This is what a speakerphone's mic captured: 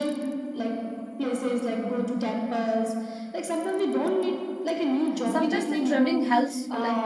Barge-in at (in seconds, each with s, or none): 5.2 s